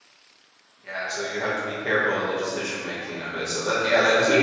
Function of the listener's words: listening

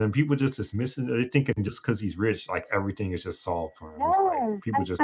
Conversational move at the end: taking over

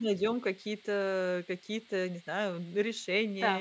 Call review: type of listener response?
taking over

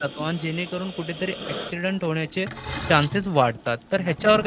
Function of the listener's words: listening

